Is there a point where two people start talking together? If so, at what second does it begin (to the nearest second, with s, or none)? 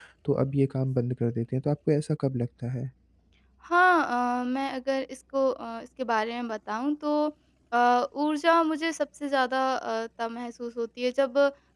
none